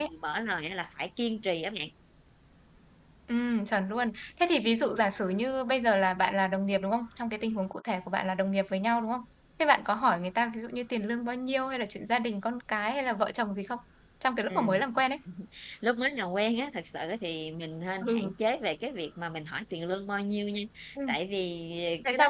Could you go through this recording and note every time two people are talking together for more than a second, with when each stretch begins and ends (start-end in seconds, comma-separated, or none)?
none